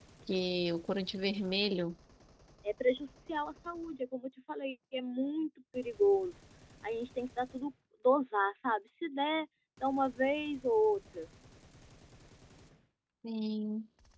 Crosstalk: none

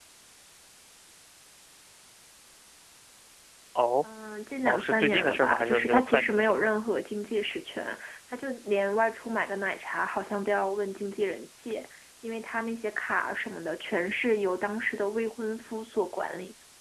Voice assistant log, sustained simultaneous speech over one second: present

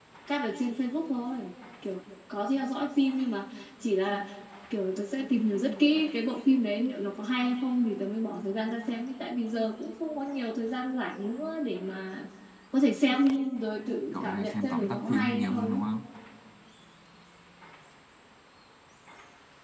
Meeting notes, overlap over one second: present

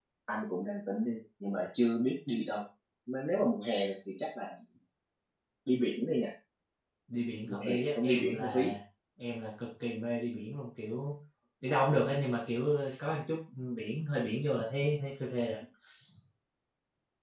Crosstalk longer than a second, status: present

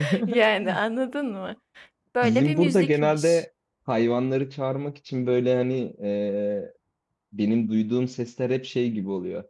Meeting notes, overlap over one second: present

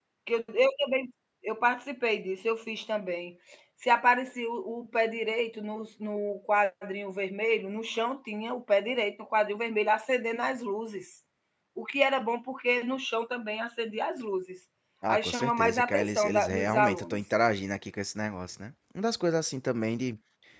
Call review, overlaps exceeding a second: present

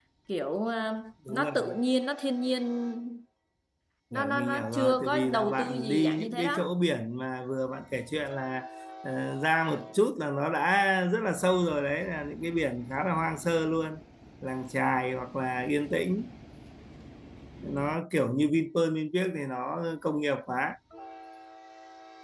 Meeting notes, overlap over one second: present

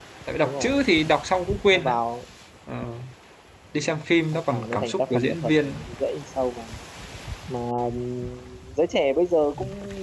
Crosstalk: present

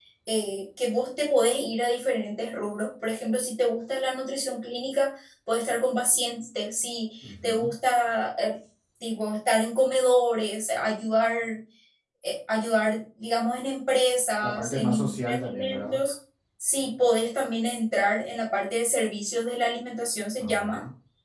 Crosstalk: present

